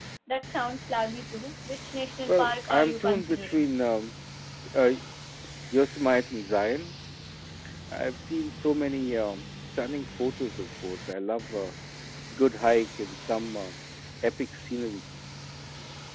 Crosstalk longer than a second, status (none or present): present